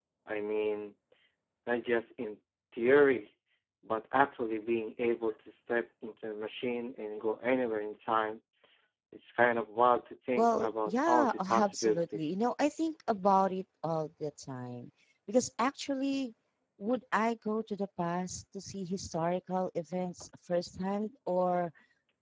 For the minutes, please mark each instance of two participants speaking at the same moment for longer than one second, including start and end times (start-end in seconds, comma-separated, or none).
10.4-12.3